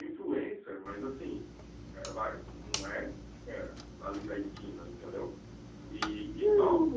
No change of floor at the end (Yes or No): No